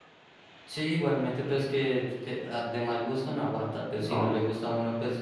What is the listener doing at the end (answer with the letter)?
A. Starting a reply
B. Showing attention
B